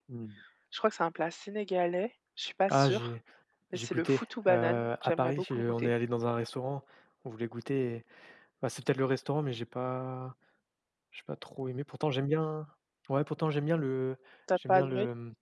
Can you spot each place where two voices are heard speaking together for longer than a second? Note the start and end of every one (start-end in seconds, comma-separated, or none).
3.7-5.9